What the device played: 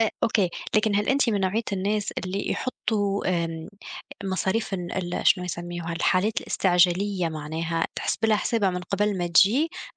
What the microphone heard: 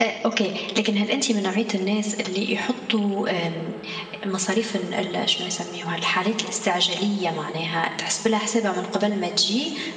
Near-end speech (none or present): none